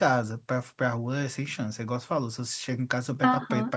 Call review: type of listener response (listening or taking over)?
taking over